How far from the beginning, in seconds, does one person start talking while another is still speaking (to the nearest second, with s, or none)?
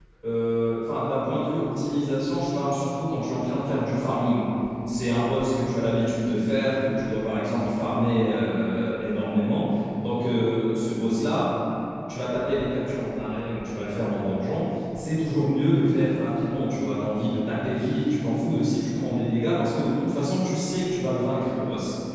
none